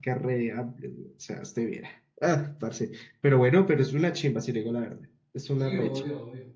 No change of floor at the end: No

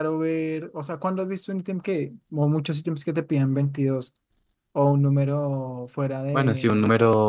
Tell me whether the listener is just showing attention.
No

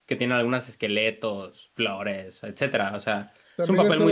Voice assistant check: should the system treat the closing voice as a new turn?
Yes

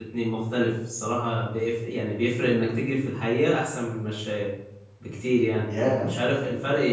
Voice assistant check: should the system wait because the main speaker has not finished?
Yes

